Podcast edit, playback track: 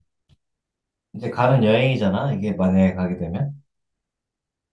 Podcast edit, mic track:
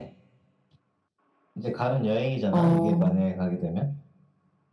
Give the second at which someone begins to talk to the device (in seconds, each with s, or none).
2.5 s